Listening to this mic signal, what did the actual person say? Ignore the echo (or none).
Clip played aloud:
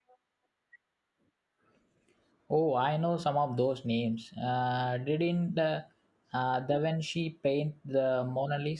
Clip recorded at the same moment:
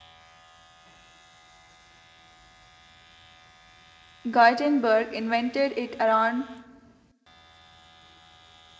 Gutenberg invented it around